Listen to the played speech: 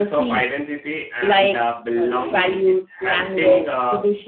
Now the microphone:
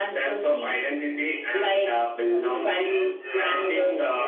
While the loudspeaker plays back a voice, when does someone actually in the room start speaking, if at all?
2.8 s

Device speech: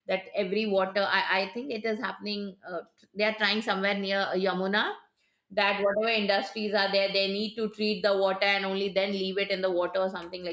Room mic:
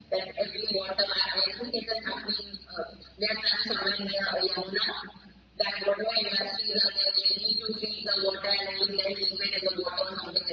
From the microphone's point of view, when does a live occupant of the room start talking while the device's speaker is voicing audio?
none

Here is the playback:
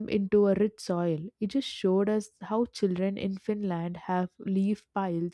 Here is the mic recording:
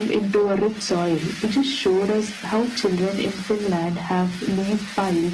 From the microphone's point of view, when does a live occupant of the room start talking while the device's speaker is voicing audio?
none

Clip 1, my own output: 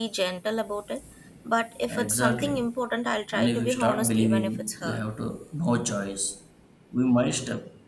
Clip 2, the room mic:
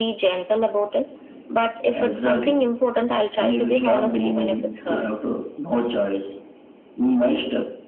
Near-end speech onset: none

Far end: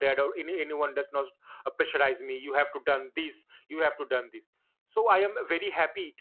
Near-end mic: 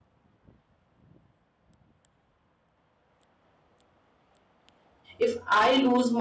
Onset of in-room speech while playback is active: 5.2 s

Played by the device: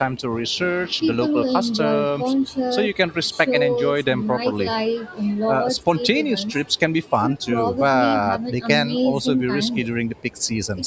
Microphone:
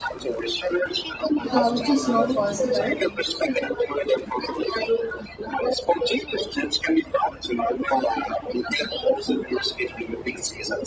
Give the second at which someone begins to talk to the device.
1.5 s

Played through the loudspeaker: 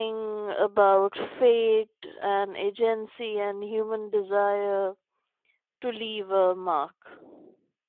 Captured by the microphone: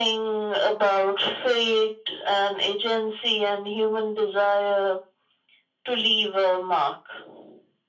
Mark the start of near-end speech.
none

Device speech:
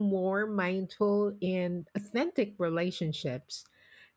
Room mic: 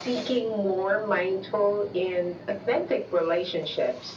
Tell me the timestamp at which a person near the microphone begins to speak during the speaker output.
none

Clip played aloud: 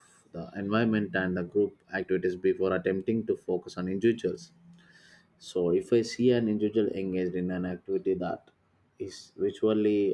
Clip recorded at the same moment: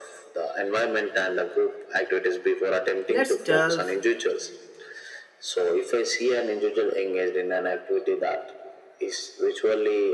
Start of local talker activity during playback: 3.1 s

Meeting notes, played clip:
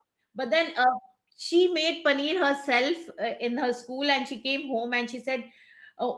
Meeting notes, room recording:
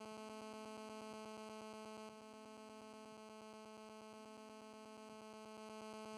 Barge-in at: none

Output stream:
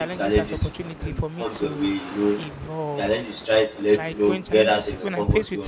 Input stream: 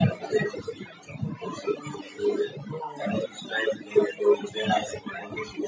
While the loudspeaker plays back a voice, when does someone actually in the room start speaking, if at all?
none

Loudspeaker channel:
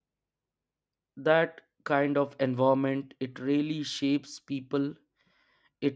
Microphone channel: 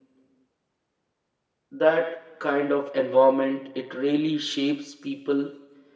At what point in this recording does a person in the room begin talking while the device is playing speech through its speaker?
none

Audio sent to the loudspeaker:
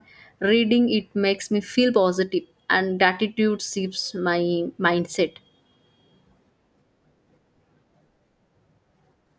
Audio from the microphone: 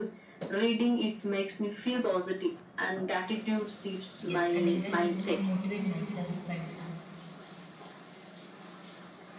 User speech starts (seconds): 4.2 s

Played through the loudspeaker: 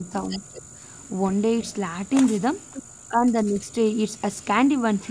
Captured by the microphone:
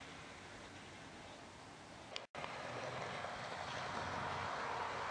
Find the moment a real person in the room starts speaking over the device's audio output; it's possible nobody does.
none

